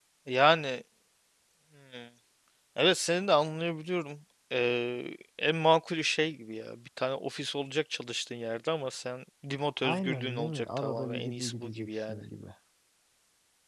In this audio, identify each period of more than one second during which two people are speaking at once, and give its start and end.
9.8-12.2

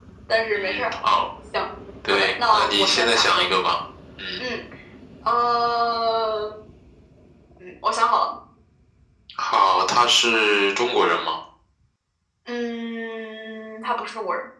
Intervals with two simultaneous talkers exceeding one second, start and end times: 2.1-3.5

